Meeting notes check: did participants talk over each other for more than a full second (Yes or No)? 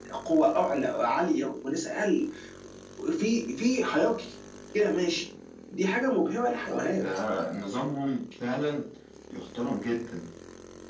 No